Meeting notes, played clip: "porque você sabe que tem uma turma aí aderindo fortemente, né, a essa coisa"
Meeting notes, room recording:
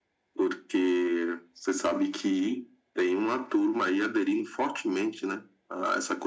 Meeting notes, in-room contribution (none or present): none